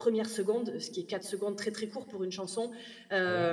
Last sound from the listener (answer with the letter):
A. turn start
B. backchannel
B